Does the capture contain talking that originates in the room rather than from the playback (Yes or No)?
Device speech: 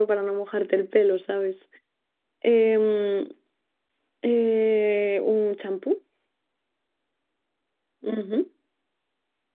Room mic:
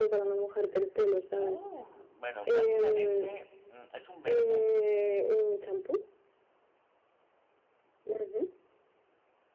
Yes